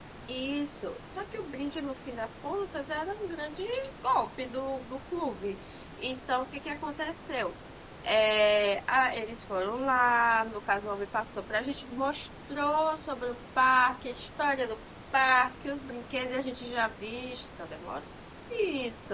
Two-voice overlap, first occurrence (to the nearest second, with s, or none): none